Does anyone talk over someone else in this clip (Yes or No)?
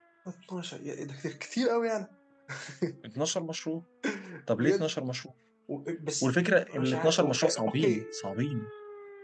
Yes